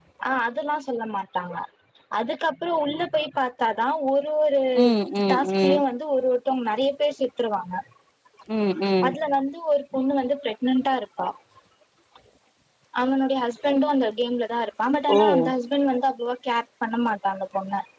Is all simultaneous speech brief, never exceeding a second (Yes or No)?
Yes